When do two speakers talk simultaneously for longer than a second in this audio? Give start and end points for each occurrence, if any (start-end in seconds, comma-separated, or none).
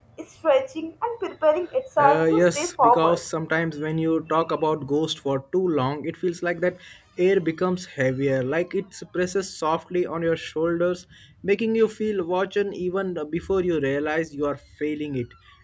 2.0-3.2